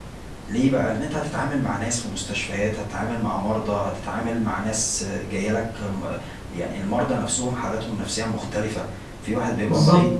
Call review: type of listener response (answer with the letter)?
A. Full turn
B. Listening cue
B